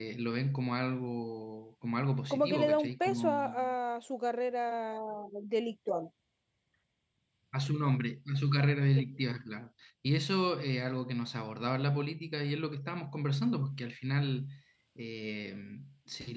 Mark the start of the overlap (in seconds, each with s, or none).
2.3 s